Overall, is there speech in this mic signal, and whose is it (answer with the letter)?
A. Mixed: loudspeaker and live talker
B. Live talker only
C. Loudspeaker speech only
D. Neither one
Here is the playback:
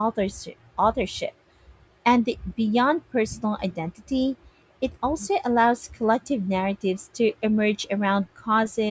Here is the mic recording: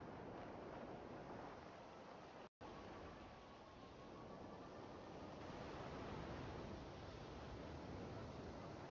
D